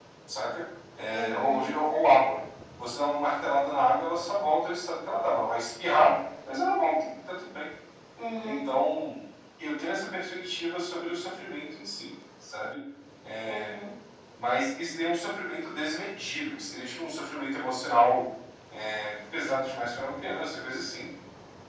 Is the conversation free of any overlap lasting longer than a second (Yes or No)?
Yes